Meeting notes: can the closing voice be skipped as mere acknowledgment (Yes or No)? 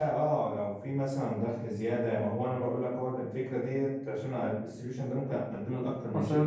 No